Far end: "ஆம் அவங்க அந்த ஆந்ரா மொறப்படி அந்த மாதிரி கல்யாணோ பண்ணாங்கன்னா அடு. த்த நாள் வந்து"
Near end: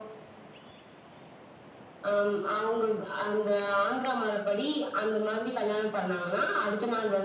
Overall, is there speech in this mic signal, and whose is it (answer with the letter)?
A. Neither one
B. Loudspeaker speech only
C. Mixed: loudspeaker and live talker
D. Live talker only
B